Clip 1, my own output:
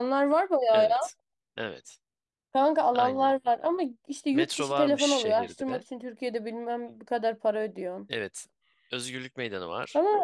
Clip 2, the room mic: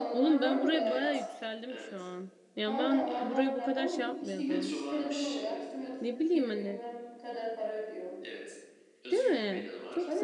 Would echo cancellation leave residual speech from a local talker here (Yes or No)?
Yes